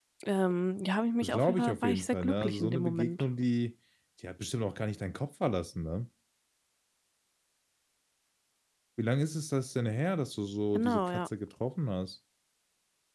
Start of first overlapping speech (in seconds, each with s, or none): 1.2 s